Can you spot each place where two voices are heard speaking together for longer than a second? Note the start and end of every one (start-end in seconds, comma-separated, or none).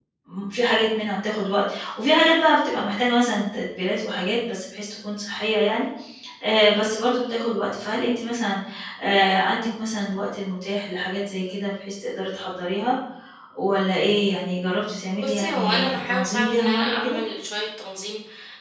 15.2-17.2